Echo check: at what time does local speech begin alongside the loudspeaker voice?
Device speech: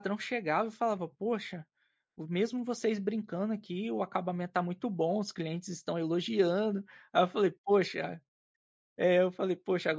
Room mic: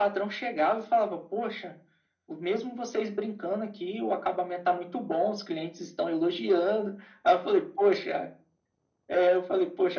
none

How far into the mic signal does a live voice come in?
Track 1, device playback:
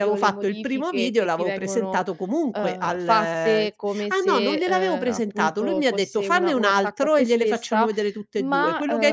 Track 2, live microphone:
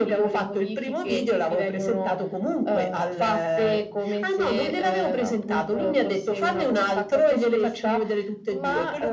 none

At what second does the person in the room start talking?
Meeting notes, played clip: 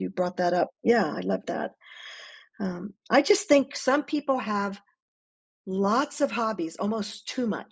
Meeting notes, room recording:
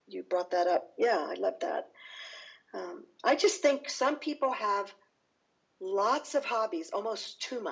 none

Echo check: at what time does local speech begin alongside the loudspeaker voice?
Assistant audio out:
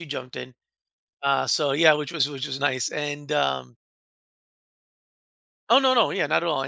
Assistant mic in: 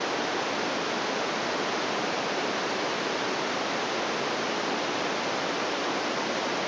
none

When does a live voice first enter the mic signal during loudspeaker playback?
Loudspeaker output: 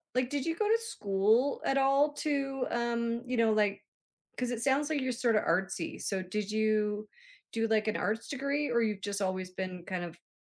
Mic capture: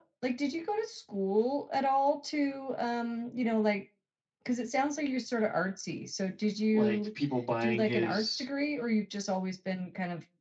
6.7 s

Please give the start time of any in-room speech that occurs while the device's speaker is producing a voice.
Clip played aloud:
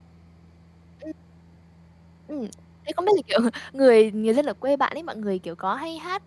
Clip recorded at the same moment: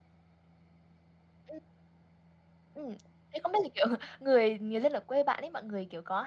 none

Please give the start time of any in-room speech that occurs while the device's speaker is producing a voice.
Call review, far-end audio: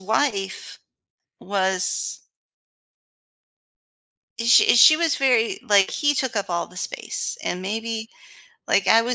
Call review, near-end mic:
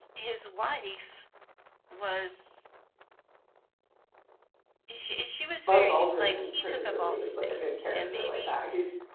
5.6 s

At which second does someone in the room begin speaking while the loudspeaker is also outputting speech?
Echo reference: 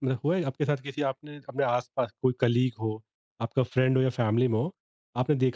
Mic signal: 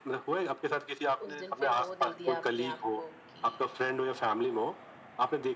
1.3 s

